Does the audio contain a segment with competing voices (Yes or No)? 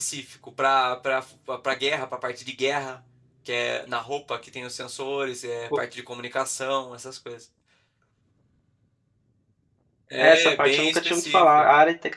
Yes